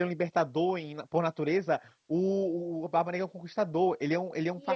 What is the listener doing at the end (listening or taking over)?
taking over